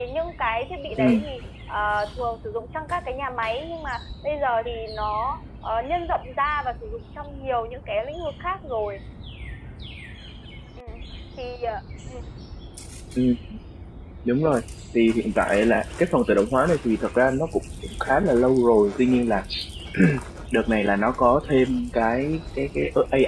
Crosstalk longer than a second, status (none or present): none